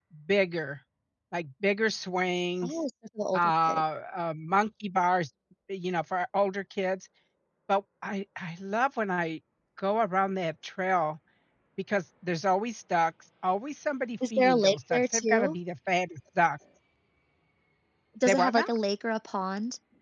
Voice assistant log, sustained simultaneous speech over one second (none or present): present